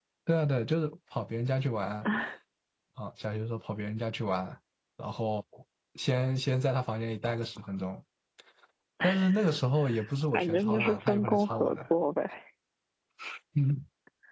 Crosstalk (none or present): present